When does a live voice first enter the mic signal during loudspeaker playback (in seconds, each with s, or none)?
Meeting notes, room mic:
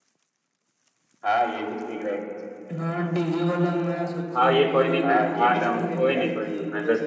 4.3 s